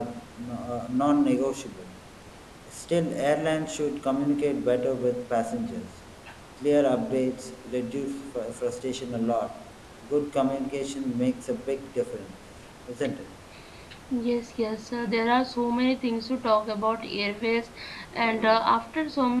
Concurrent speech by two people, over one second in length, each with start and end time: none

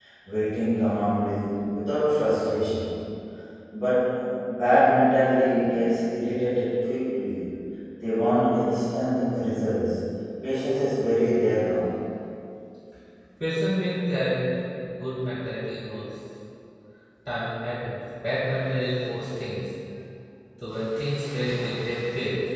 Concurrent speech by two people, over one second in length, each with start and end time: none

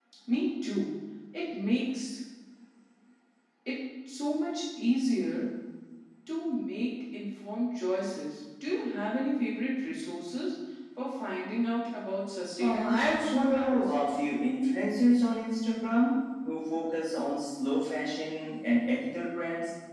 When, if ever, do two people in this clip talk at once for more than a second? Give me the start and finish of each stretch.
12.6-13.9

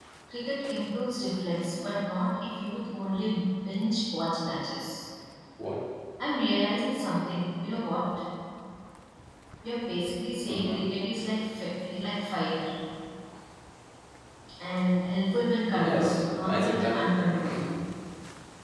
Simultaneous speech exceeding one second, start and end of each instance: 15.7-17.1

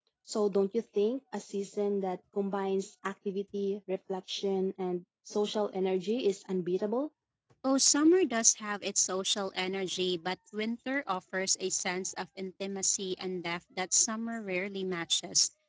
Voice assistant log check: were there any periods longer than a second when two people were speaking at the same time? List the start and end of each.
none

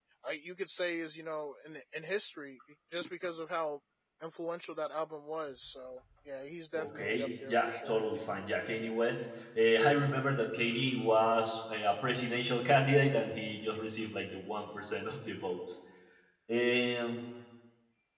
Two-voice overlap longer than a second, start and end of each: 6.8-8.0

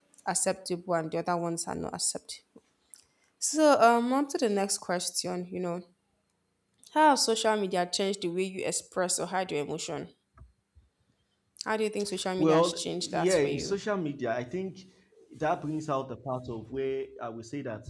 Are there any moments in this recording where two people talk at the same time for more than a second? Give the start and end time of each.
12.4-13.8

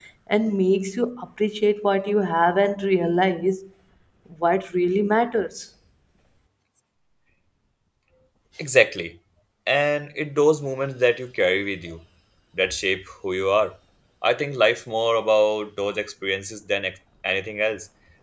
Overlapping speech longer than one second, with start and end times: none

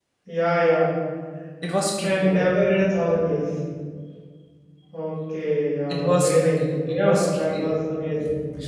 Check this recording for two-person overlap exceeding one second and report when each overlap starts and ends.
5.9-7.7

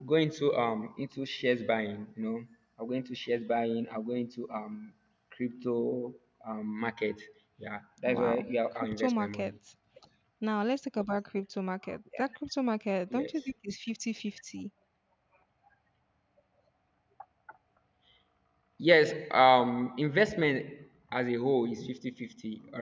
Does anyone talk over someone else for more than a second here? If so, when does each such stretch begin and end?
8.1-9.5

